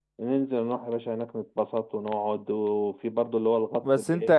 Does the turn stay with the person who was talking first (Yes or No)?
No